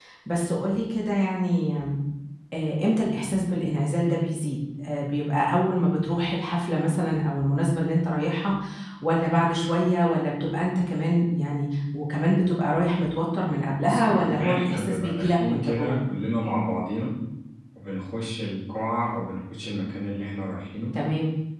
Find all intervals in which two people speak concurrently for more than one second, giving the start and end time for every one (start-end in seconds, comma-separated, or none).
13.8-16.0